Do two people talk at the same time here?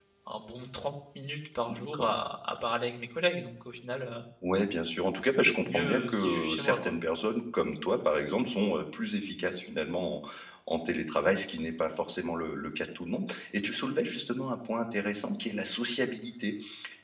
Yes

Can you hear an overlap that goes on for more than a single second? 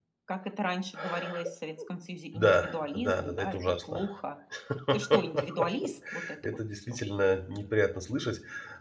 Yes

